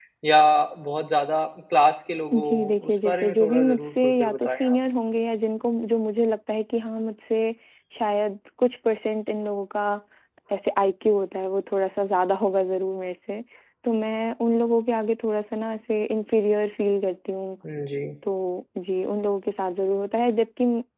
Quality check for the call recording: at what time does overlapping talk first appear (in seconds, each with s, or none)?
2.3 s